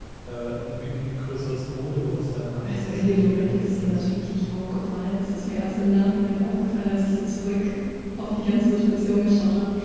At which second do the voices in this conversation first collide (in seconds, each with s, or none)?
2.6 s